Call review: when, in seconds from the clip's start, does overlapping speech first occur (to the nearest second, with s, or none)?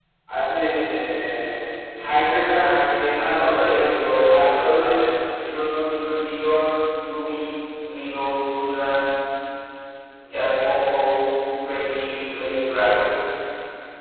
3 s